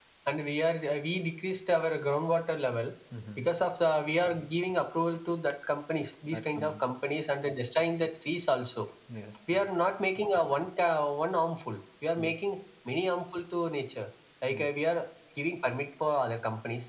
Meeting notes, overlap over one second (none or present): none